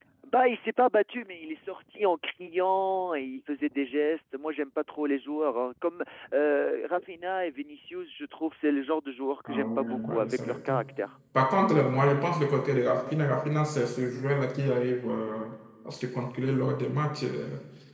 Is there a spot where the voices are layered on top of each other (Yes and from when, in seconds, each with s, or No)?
Yes, from 9.5 s